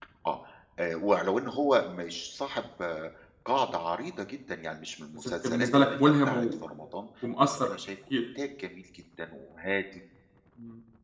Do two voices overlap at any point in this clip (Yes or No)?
Yes